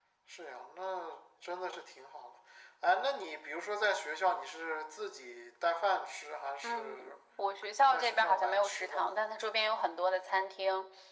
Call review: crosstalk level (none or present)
present